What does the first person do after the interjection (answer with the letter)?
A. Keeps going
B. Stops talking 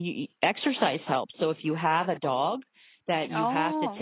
A